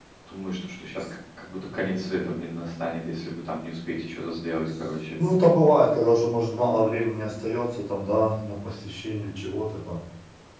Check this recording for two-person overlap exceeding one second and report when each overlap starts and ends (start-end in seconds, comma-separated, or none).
none